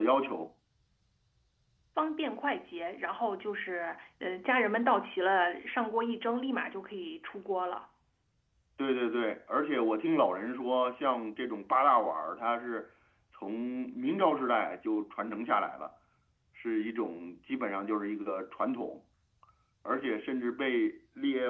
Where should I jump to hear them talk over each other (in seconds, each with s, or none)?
none